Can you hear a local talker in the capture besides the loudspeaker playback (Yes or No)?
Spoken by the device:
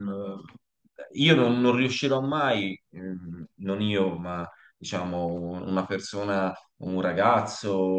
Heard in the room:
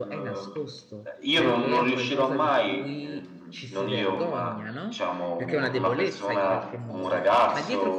Yes